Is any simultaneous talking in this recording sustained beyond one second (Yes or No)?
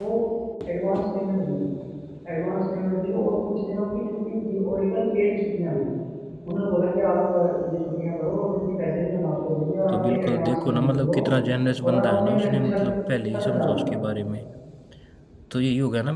Yes